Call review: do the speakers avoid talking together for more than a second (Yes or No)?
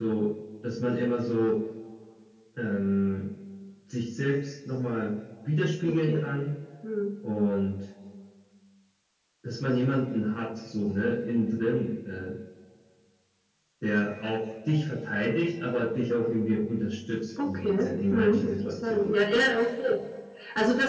No